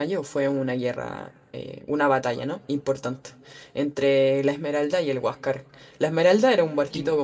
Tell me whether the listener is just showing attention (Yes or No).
Yes